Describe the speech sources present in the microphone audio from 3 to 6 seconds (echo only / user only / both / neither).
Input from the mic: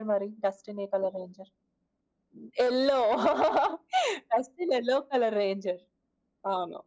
echo only